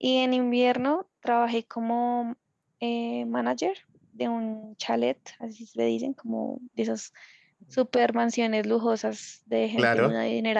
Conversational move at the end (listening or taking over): listening